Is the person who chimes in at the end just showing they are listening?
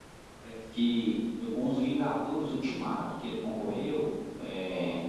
Yes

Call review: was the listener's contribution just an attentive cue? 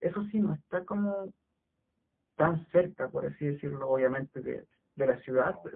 Yes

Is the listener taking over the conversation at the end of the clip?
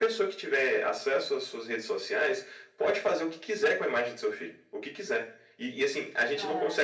No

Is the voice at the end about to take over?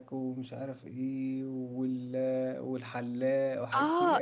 Yes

